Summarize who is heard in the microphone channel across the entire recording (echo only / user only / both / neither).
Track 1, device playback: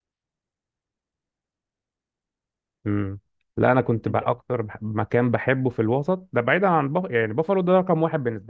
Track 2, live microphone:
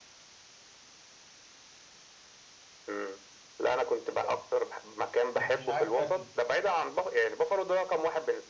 both